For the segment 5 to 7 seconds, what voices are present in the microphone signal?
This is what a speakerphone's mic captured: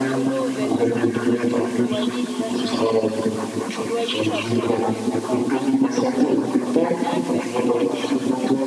both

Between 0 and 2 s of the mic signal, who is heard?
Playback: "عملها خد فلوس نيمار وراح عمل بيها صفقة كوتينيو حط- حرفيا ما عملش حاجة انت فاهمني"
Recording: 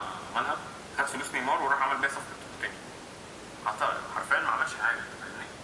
echo only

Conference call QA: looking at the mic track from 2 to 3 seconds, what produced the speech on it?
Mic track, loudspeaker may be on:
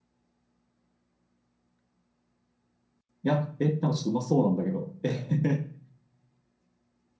neither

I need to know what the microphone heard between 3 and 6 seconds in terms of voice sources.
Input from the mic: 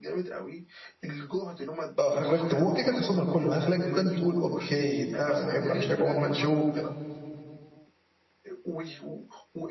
both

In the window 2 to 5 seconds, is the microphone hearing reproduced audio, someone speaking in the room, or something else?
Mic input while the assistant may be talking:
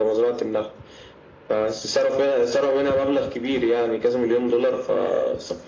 echo only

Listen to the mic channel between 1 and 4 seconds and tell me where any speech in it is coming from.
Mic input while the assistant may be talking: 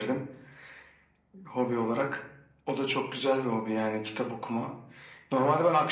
echo only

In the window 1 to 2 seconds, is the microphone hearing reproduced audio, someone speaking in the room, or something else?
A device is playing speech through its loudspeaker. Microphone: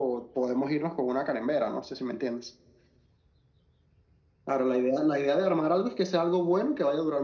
echo only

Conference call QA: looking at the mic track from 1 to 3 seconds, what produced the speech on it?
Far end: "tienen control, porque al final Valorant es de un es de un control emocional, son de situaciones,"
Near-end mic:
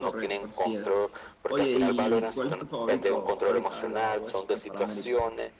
both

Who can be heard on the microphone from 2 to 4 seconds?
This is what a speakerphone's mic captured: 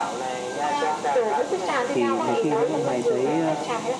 both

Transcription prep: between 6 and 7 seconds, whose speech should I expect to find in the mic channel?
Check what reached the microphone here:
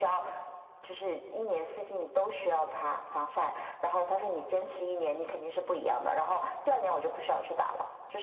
echo only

